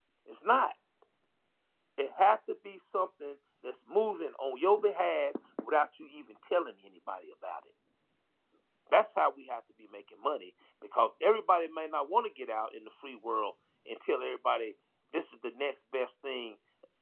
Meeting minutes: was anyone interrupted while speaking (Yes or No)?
No